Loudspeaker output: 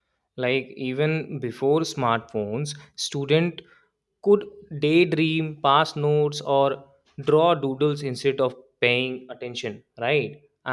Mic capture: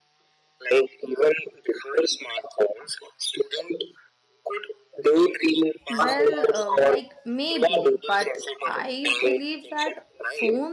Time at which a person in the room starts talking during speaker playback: 6 s

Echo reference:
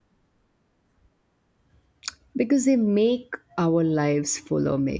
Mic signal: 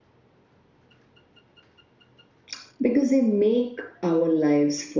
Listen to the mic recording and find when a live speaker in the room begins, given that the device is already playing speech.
none

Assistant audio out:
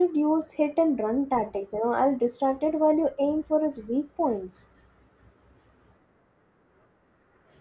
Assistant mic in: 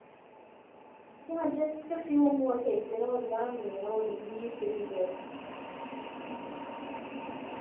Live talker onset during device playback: 1 s

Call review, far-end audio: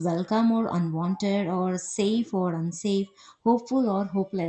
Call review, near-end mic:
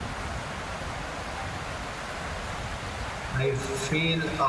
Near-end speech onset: 3 s

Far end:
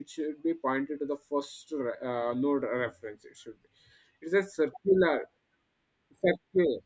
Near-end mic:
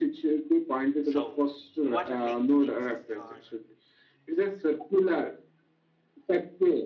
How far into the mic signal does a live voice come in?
1 s

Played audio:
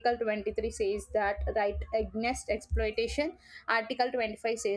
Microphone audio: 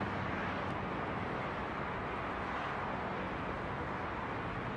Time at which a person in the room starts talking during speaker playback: none

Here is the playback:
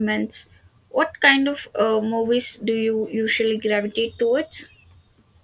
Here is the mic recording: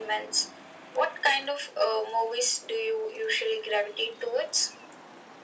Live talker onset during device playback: none

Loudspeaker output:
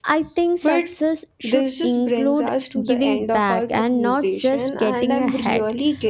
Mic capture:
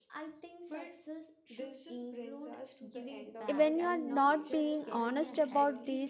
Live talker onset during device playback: 4 s

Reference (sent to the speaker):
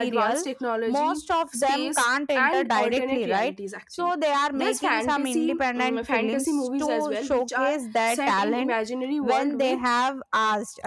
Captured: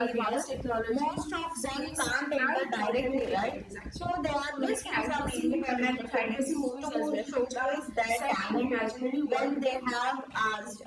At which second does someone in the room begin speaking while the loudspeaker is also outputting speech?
none

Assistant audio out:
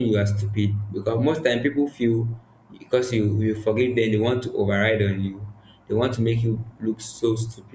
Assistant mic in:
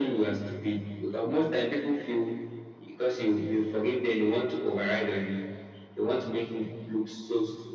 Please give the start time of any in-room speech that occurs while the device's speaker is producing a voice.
none

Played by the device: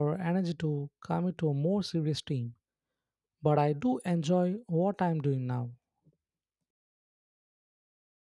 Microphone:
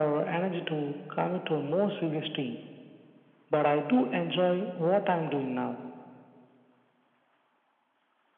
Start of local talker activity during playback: none

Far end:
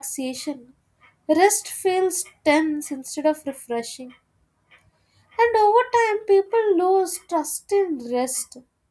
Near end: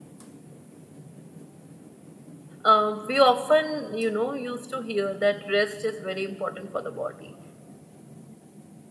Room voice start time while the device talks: 3 s

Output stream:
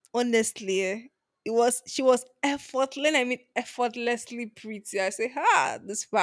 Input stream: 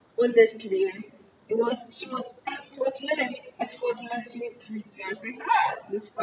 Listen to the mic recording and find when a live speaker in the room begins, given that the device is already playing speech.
none

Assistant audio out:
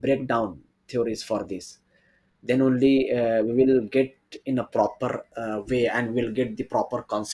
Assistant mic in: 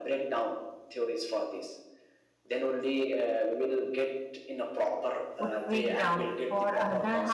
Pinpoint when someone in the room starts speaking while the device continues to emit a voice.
5 s

